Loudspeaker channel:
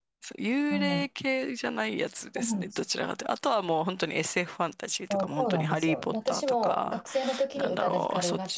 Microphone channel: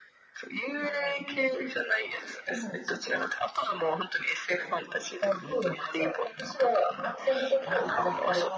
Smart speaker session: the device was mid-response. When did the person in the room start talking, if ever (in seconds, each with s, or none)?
7.6 s